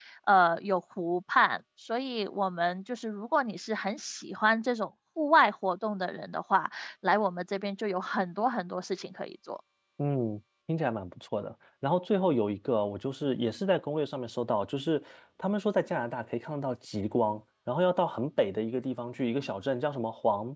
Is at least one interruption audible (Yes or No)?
No